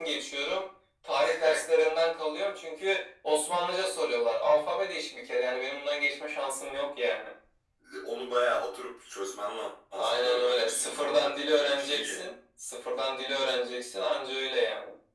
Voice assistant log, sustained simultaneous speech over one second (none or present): present